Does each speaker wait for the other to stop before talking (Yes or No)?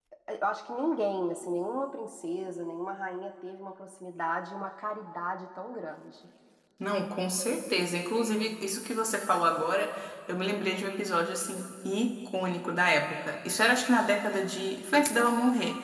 Yes